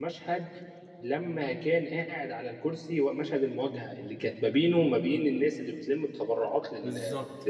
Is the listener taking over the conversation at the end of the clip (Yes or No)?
Yes